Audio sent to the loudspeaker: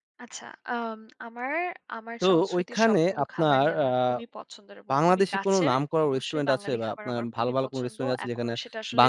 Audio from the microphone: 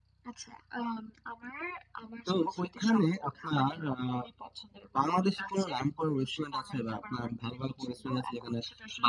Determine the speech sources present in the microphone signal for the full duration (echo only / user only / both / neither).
echo only